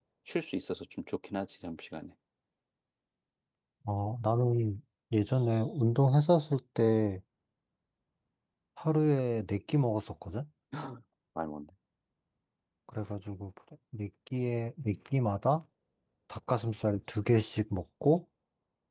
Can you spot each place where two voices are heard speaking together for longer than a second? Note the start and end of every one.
none

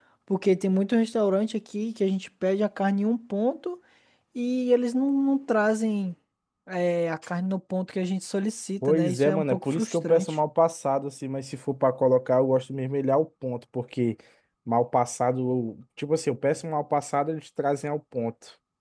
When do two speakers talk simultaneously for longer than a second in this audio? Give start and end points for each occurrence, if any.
8.9-10.4

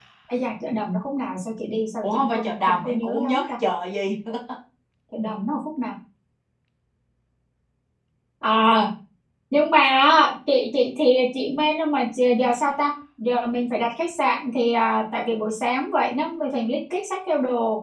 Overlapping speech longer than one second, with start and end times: 2.0-3.5

